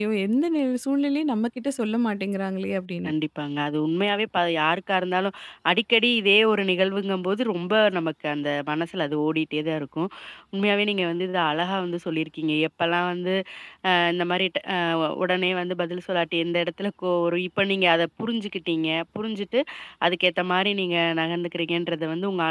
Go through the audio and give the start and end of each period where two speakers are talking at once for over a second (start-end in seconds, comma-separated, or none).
none